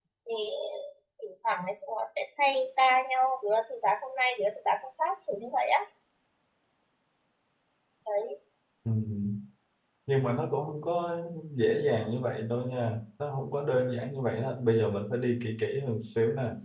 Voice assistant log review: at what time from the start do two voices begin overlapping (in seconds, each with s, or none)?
none